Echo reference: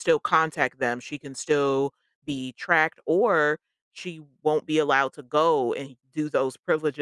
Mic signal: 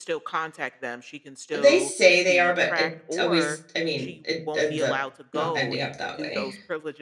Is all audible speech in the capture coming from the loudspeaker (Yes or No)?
No